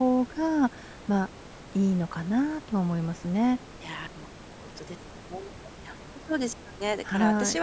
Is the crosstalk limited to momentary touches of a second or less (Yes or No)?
Yes